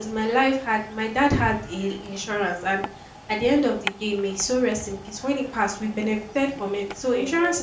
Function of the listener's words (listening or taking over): listening